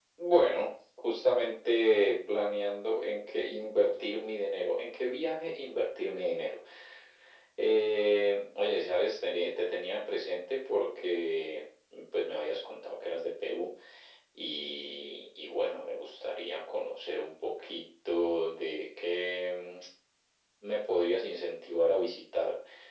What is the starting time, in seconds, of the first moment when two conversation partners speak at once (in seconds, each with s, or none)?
none